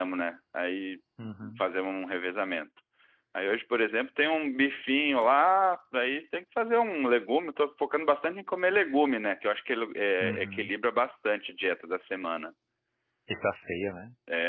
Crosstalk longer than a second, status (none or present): none